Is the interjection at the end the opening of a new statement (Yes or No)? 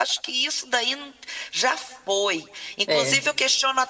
No